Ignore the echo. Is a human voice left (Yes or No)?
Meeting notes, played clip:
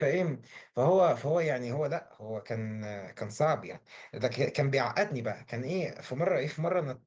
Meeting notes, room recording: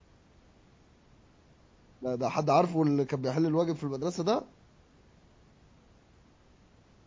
Yes